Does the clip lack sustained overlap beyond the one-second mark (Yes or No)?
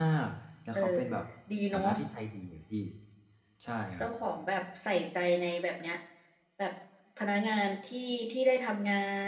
Yes